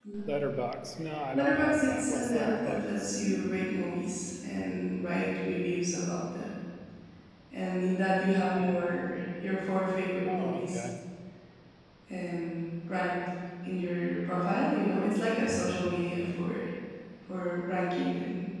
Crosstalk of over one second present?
Yes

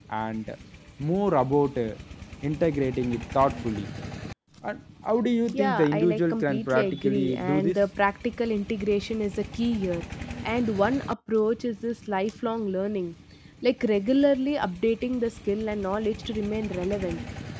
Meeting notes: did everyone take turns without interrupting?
No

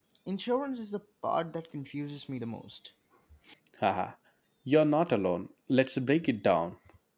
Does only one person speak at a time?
Yes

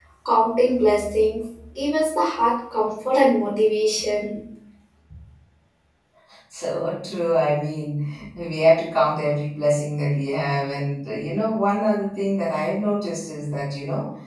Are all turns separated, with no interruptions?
Yes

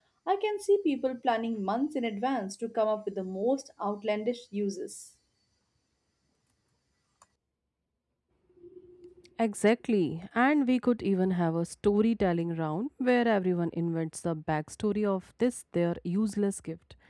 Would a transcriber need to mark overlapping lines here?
No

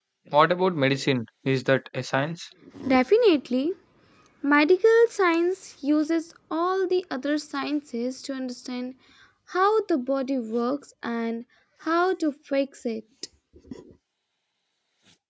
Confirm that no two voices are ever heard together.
Yes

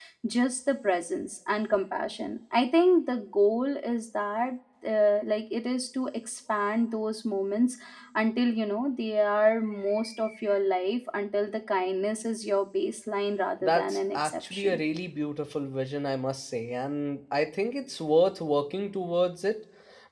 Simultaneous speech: Yes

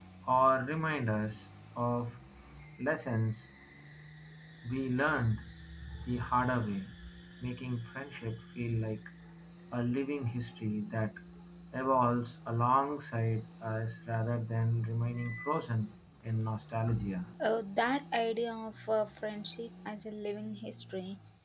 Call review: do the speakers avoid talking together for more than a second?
Yes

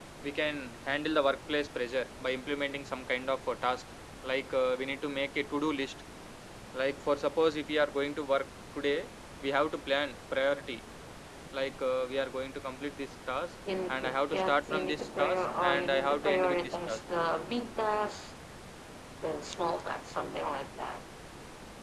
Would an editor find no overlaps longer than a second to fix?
No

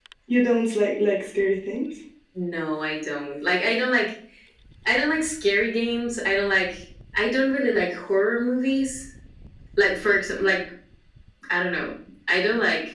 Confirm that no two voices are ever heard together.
Yes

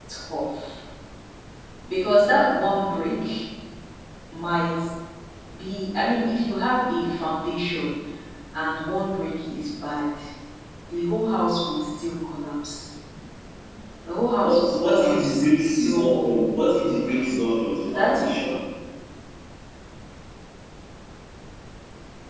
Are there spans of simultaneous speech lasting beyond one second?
Yes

